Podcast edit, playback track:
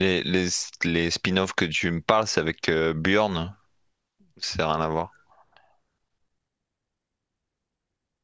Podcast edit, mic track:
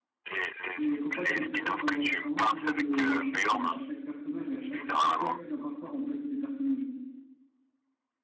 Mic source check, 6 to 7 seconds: user only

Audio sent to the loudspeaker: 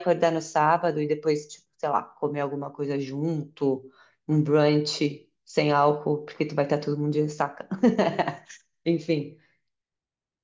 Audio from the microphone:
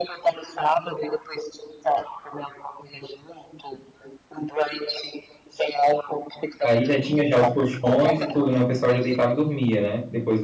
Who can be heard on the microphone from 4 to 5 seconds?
echo only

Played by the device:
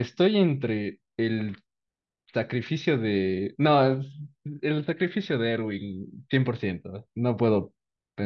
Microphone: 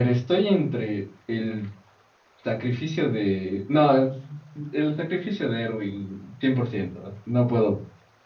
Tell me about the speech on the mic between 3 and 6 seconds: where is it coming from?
echo only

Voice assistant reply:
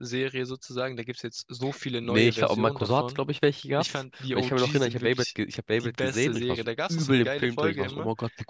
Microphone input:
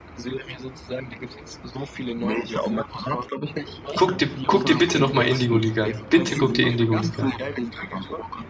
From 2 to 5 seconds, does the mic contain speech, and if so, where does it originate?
both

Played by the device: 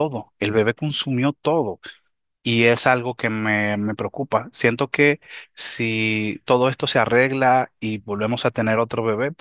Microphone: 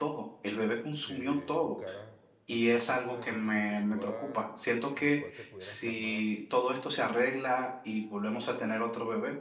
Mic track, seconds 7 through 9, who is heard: echo only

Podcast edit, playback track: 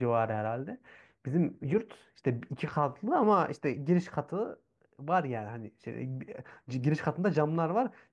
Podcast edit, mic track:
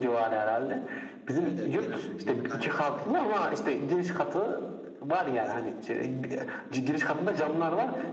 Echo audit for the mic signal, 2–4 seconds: both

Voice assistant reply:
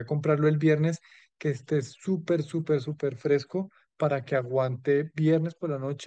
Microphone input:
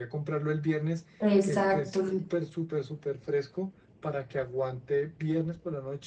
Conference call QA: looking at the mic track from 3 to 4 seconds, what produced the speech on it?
echo only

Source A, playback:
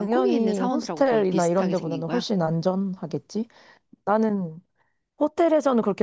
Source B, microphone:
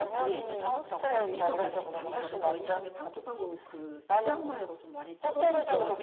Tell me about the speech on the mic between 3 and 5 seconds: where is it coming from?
both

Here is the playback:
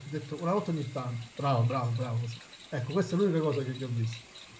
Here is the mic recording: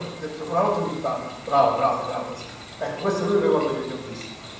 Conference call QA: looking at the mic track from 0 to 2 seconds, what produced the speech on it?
echo only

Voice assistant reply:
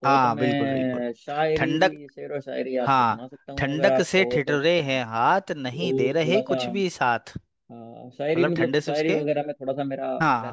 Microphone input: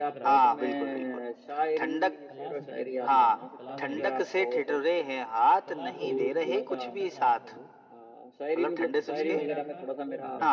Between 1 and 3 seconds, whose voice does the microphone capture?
both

